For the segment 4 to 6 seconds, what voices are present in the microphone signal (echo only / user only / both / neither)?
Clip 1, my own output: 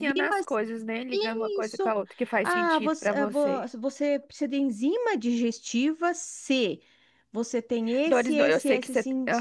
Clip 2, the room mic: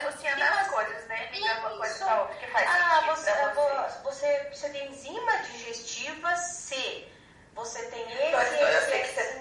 echo only